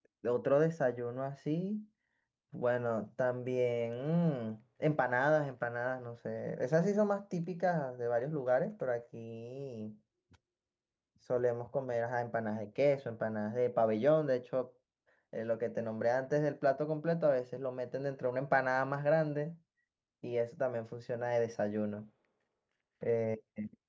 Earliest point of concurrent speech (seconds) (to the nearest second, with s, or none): none